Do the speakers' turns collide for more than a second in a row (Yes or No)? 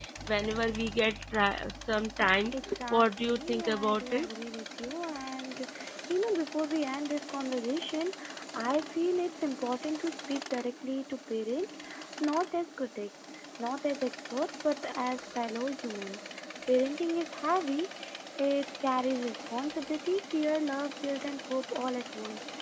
Yes